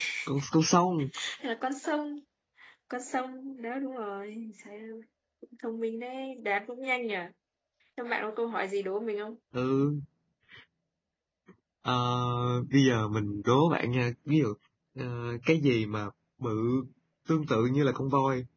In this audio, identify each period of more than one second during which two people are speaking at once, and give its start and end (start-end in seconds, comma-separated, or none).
none